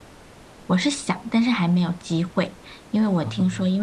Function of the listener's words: listening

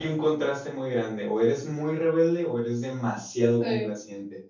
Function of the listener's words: listening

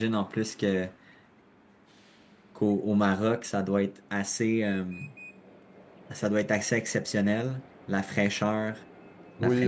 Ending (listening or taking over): taking over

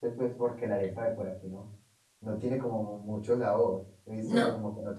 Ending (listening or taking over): listening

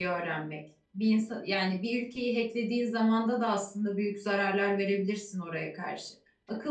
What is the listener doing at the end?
listening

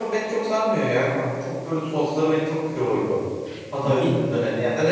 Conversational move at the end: listening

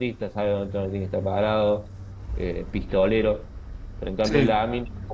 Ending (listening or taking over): listening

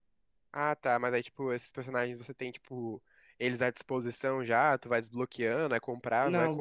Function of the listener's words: taking over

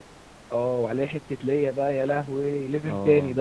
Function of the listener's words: taking over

